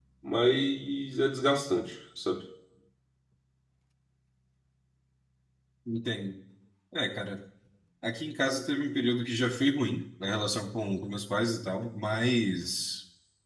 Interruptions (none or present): none